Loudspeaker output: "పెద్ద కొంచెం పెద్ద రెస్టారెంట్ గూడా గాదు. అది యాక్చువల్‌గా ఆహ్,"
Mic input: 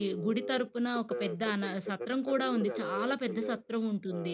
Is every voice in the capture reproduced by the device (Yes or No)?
No